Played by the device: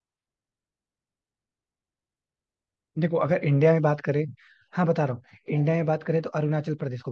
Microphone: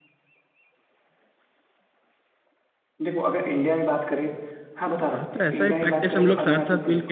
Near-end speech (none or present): present